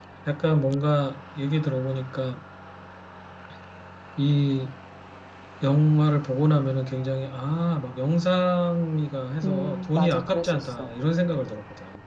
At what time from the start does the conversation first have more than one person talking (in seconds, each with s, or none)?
9.4 s